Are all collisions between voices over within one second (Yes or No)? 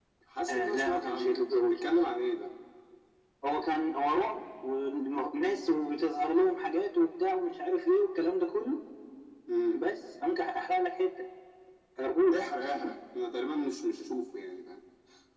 No